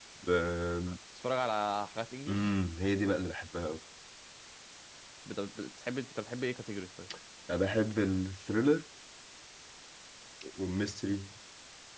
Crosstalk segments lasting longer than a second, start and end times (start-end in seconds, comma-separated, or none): none